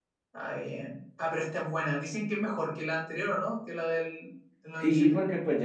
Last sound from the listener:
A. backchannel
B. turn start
B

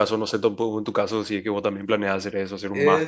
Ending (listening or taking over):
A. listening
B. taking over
B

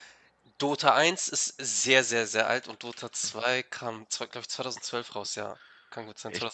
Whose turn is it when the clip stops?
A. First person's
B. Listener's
B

